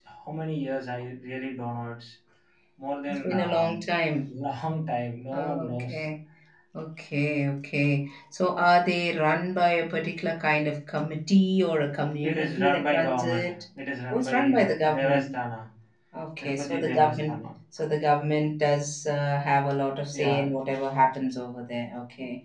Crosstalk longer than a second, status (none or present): present